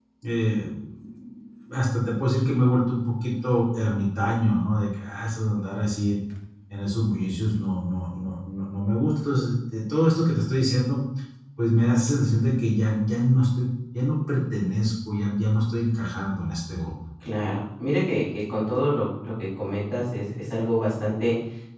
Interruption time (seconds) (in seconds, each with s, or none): none